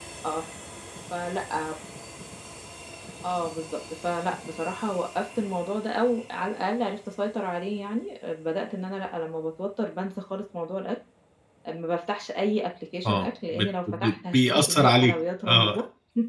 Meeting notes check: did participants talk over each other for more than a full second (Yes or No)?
Yes